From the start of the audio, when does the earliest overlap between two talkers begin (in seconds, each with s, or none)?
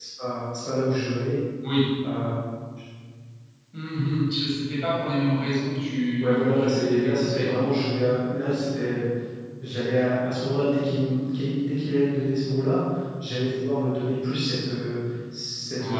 6.2 s